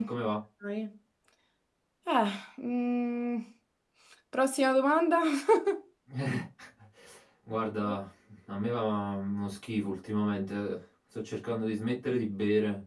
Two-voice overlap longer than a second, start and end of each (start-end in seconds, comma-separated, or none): none